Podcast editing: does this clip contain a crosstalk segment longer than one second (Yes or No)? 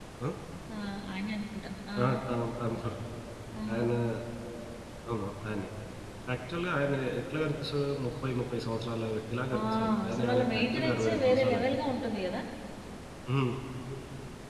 Yes